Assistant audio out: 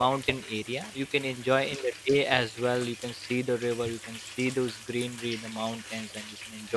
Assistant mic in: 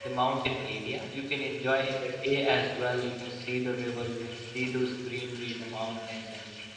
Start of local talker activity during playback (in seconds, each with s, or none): none